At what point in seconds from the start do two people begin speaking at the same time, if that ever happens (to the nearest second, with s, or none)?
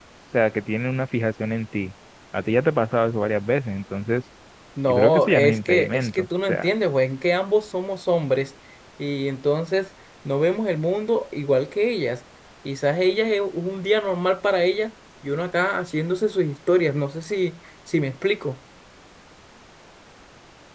5 s